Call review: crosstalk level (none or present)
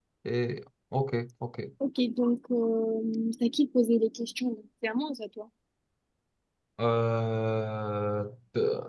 none